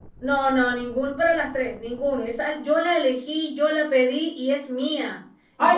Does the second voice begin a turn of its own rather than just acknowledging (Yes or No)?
Yes